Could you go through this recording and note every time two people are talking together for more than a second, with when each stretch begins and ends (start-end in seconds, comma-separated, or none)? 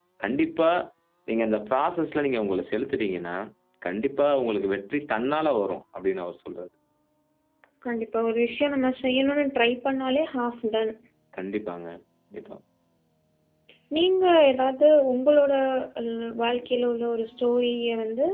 none